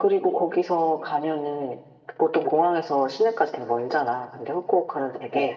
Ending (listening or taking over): listening